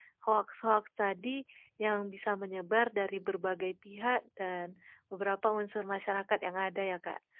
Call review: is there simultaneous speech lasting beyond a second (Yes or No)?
No